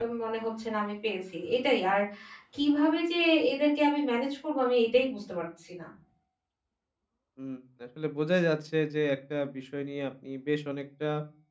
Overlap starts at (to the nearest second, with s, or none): none